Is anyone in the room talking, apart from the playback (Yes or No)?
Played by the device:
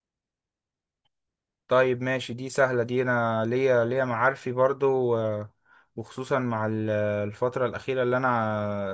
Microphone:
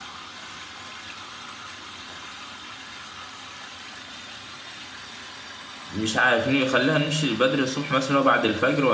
Yes